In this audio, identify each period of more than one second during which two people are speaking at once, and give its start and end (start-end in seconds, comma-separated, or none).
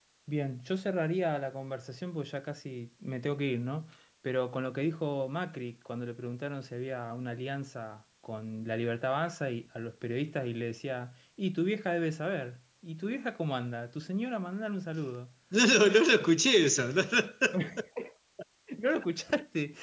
none